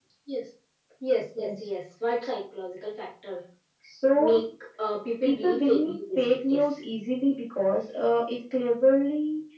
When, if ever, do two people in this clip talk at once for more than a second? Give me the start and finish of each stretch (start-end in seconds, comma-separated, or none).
5.2-6.8